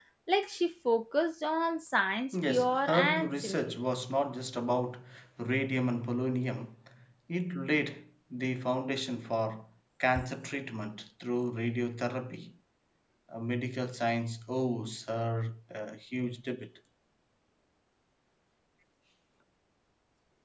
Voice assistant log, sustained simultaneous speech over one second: present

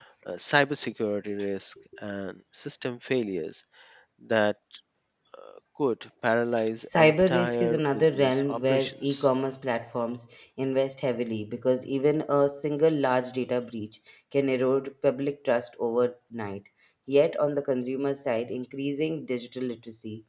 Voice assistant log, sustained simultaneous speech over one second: present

